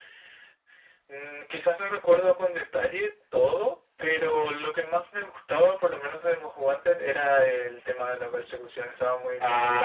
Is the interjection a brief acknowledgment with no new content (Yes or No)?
No